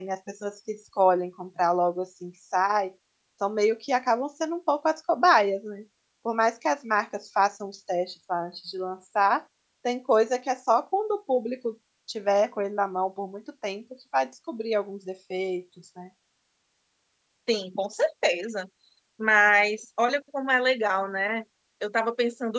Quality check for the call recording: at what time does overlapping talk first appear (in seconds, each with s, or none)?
none